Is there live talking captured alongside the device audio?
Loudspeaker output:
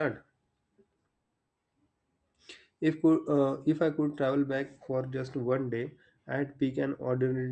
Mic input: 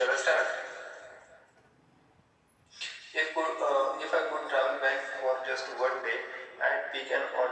No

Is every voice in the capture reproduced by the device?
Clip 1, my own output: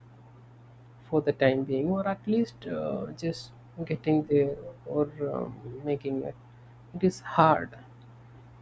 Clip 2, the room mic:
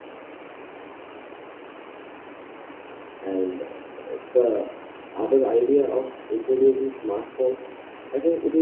No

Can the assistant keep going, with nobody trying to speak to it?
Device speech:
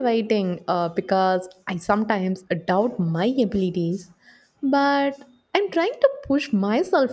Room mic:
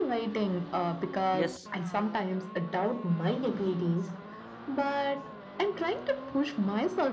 No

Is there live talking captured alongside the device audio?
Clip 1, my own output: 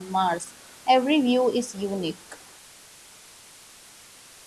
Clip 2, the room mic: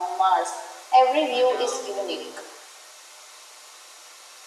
Yes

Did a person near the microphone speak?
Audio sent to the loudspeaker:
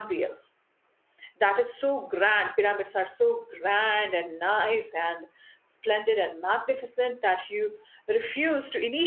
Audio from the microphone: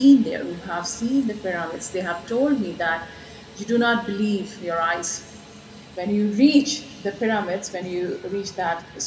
Yes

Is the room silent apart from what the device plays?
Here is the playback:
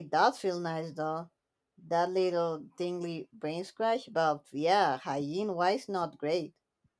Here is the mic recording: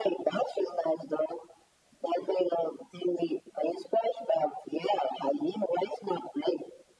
Yes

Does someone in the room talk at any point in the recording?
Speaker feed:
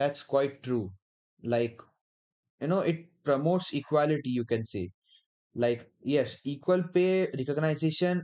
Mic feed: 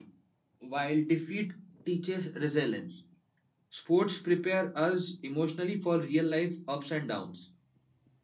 Yes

